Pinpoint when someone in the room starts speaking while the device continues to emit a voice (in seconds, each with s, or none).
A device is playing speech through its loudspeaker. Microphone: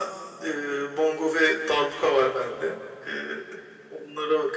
none